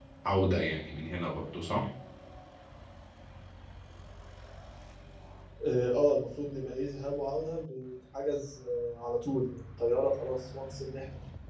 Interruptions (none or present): none